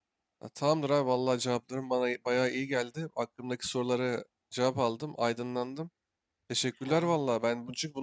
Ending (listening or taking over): listening